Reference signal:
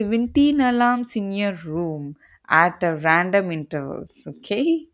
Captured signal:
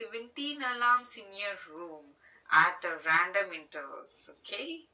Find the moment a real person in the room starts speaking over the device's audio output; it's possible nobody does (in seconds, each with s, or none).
none